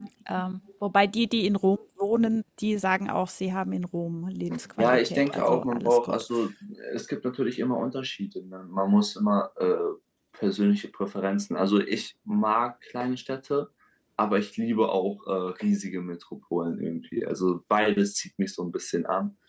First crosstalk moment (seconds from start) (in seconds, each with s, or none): 4.8 s